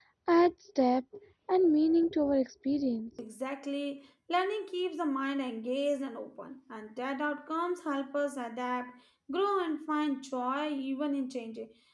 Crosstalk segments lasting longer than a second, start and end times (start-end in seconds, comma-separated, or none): none